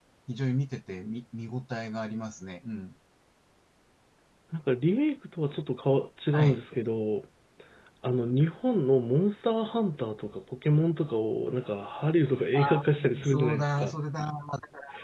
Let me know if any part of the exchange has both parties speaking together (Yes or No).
Yes